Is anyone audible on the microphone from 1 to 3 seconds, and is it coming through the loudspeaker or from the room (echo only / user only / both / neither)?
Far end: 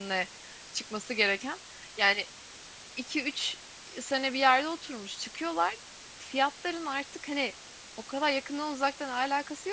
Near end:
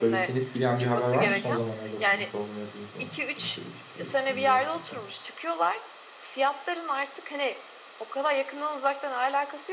both